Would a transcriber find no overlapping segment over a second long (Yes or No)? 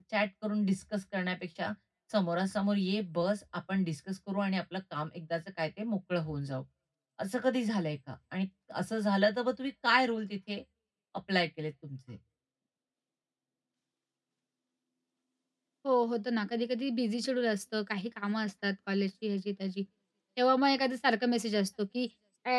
Yes